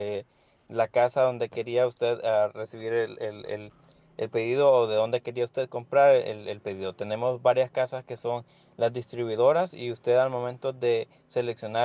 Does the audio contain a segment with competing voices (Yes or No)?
No